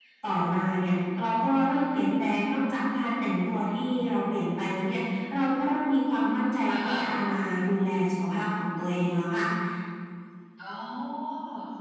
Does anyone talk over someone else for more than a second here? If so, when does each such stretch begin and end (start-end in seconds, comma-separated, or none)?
none